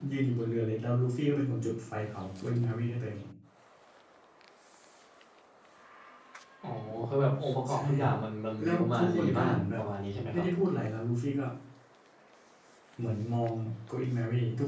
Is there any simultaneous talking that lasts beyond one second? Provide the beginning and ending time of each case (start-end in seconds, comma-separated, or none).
8.6-9.8